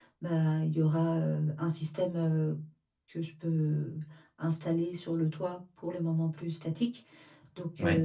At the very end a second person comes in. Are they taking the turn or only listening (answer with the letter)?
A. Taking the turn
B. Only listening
B